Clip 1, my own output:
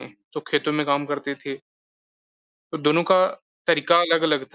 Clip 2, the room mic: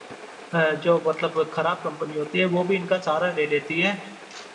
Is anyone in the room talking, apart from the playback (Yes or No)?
Yes